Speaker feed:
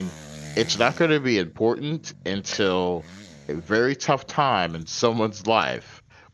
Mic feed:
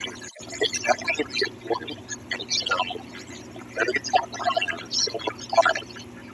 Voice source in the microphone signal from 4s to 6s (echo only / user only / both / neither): echo only